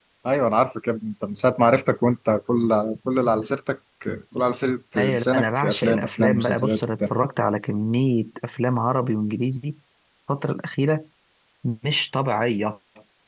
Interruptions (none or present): present